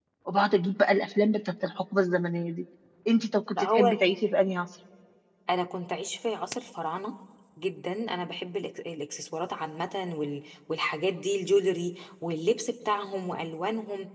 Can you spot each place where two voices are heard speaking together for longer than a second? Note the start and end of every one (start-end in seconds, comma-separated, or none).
none